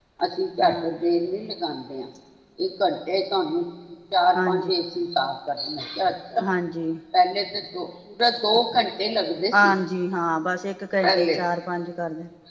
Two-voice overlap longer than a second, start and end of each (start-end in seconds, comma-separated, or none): none